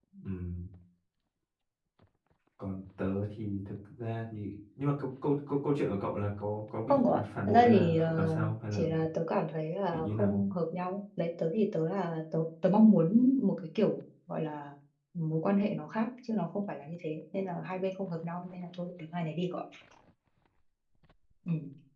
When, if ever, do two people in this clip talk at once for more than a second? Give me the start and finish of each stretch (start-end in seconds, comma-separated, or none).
6.9-8.8